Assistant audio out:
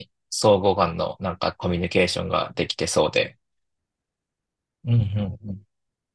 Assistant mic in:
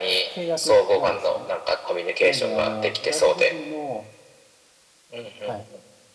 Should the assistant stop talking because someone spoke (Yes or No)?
Yes